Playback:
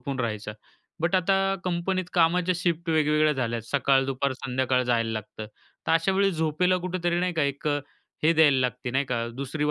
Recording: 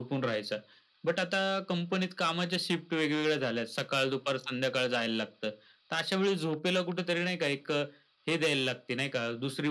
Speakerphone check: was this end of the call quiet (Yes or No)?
Yes